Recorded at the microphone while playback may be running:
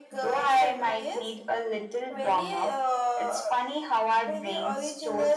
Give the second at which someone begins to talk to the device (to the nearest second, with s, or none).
none